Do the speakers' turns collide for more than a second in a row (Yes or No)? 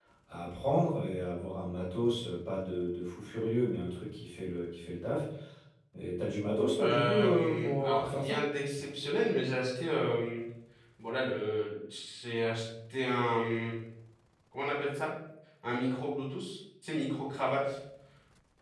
Yes